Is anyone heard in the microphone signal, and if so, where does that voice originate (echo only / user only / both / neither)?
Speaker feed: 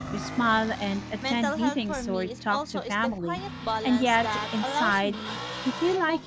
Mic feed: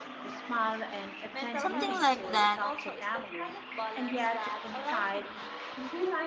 both